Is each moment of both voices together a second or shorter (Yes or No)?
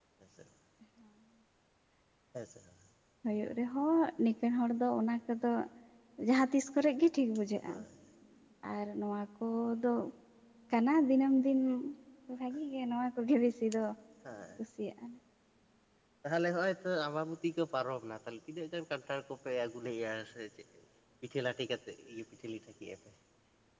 Yes